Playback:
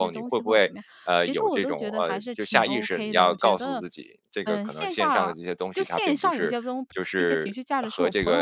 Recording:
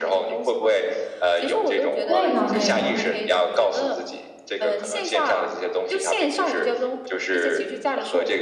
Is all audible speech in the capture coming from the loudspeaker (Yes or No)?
No